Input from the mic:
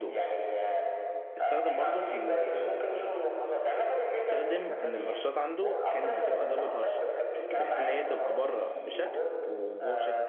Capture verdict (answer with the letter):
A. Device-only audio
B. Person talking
B